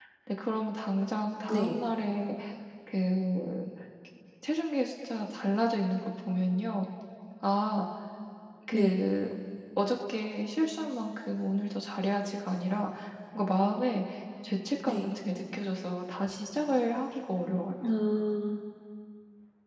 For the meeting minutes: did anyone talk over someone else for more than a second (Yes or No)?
No